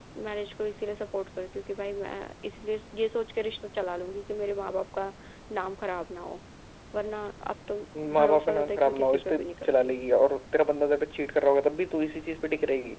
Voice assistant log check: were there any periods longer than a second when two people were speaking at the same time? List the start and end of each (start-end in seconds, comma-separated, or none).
8.2-10.0